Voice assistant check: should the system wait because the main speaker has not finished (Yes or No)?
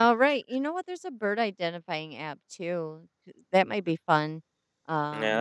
No